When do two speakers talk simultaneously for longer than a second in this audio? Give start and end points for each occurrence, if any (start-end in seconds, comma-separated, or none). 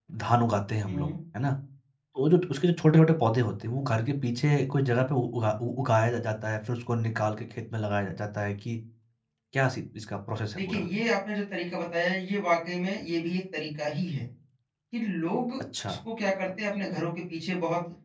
none